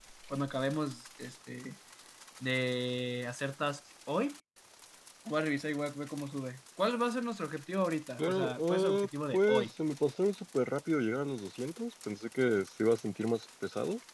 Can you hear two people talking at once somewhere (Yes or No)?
Yes